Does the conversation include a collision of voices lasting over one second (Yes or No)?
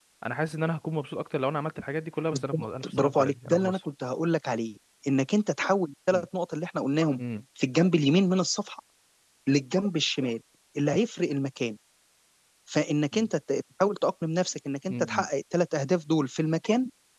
Yes